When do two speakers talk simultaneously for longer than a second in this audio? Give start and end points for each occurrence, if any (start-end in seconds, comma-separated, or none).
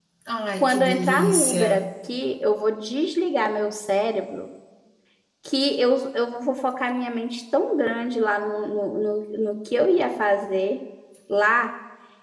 0.6-1.9